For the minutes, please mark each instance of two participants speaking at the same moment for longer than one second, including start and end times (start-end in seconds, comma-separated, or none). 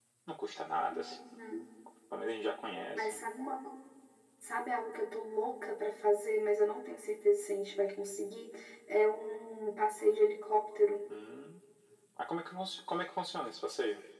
none